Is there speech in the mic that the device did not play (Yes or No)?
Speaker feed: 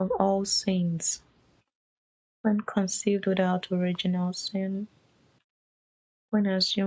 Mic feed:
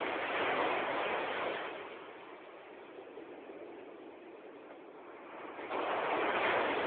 No